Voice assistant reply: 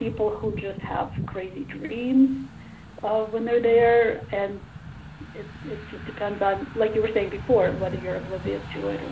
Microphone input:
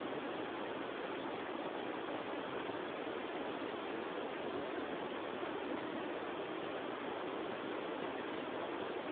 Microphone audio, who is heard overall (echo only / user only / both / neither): neither